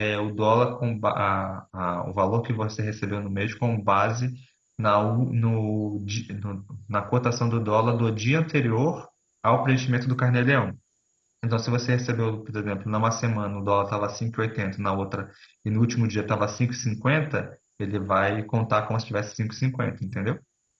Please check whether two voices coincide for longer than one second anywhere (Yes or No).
No